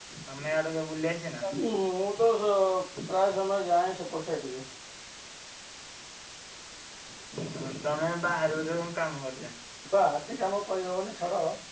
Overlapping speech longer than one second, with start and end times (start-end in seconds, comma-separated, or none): none